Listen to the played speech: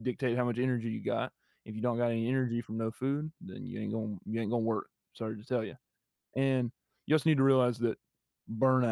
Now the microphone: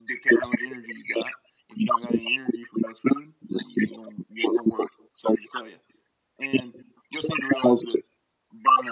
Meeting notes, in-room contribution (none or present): none